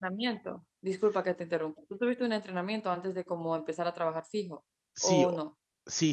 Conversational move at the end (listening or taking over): taking over